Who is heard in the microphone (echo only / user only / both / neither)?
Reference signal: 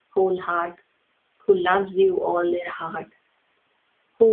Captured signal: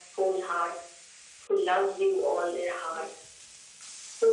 echo only